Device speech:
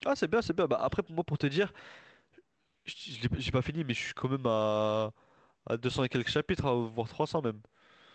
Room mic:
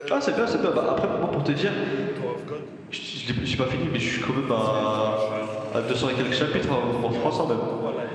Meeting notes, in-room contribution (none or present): present